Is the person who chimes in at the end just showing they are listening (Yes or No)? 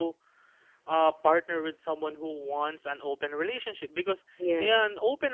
Yes